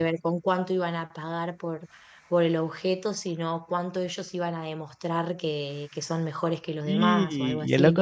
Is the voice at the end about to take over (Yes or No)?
Yes